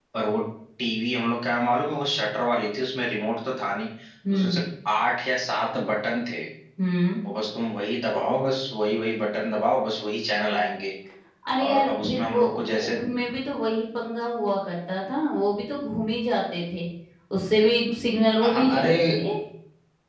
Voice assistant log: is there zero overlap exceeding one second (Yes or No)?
No